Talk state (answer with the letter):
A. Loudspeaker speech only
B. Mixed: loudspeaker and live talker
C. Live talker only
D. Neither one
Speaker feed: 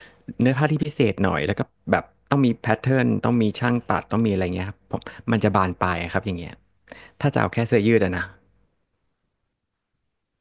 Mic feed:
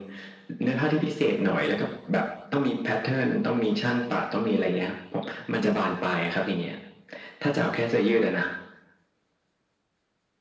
A